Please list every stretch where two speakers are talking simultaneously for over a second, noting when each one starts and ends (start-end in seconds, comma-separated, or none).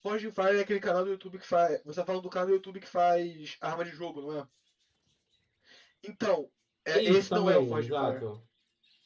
6.9-8.2